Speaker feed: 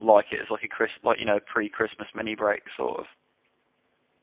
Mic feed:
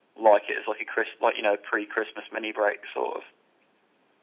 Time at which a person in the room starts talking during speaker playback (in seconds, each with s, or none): none